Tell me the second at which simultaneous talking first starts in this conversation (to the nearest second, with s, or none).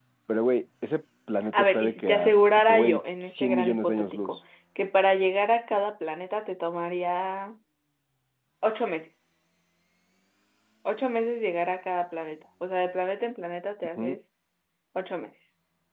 2 s